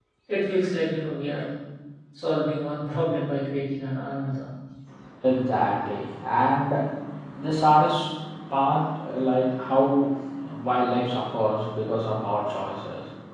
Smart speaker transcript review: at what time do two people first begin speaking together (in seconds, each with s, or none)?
none